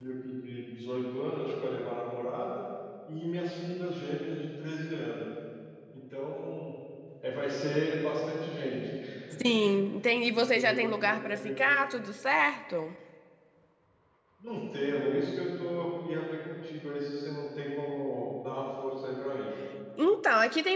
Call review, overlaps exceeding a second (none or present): present